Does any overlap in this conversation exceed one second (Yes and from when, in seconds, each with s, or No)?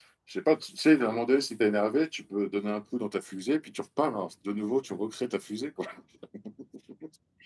No